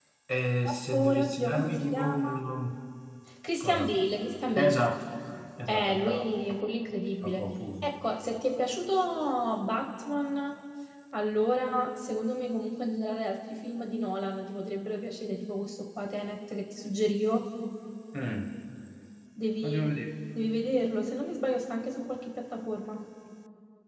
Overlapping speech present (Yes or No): Yes